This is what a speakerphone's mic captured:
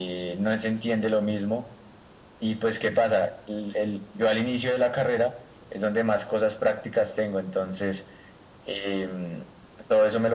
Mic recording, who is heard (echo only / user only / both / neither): echo only